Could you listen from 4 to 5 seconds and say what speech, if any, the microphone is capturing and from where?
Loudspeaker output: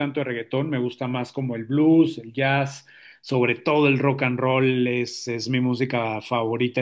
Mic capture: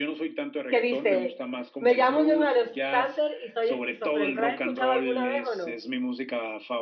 both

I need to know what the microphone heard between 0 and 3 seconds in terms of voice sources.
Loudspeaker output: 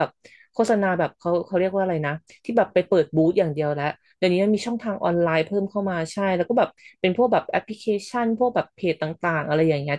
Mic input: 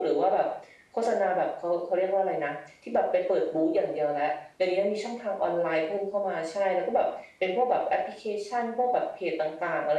echo only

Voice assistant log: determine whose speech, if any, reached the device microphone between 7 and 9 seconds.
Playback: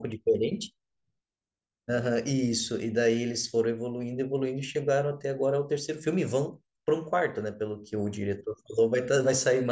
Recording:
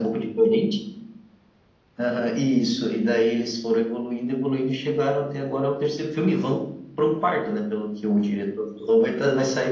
echo only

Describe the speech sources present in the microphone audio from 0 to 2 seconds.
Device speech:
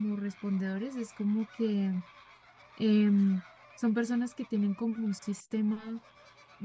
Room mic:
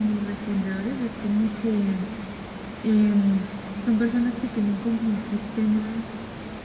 echo only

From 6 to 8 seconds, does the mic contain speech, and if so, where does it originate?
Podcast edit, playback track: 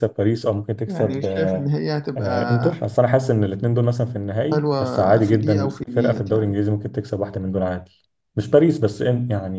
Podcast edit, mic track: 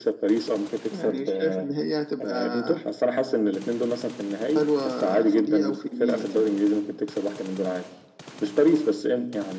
echo only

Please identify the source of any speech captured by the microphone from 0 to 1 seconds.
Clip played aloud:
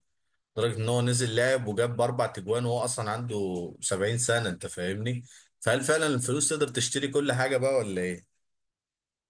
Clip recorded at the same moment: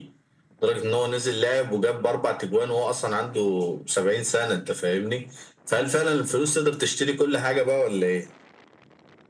echo only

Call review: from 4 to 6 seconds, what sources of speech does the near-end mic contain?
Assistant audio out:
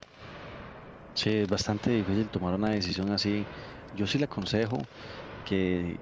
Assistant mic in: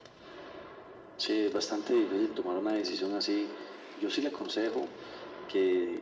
echo only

